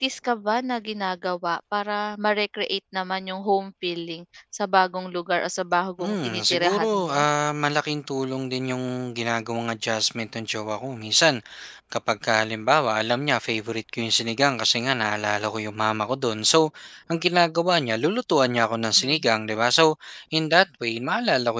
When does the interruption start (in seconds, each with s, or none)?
6.0 s